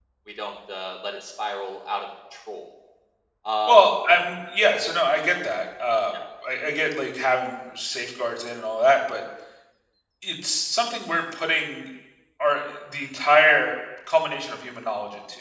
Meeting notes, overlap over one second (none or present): none